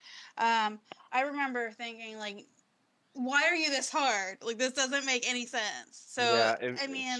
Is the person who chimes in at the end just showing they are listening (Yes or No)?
No